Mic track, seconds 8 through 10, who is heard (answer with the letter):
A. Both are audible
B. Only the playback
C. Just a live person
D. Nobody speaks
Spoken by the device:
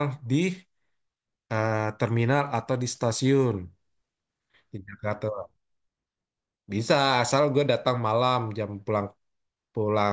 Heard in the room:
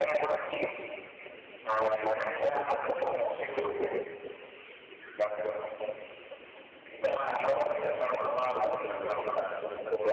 A